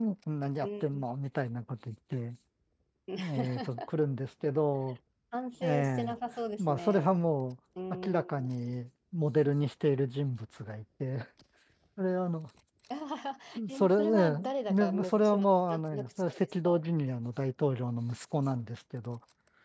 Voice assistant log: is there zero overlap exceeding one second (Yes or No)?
No